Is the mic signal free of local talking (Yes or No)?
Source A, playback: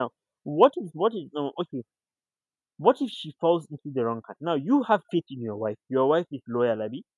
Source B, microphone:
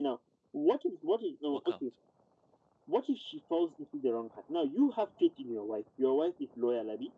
No